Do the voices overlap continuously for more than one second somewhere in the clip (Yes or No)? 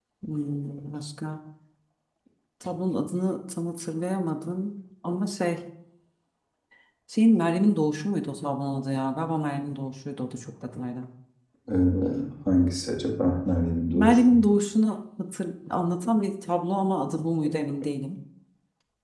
No